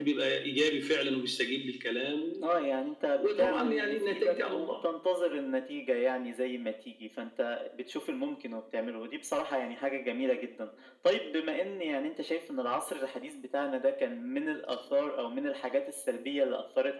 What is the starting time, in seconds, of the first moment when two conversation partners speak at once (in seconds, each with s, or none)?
3.2 s